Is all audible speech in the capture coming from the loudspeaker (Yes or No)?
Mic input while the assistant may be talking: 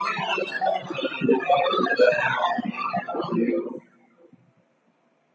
Yes